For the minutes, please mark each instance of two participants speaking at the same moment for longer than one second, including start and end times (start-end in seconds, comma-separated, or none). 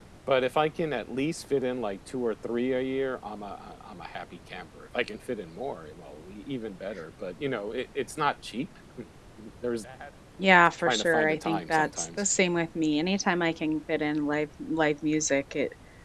10.8-12.2